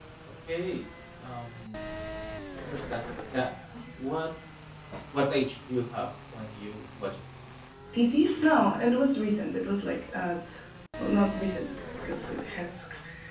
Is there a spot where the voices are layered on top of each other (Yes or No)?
No